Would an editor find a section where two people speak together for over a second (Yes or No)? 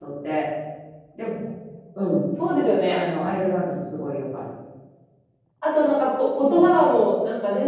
No